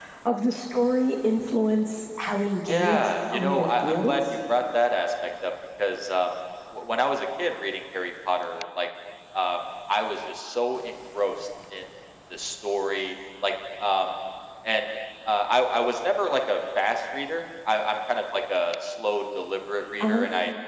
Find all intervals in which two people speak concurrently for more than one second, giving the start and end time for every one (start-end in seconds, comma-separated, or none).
2.7-4.2